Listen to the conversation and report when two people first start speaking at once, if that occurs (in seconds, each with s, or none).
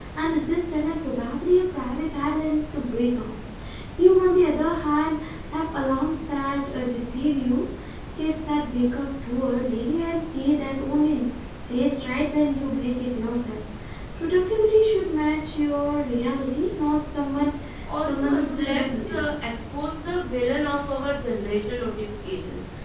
18.0 s